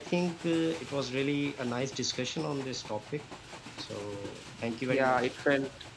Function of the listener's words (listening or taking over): taking over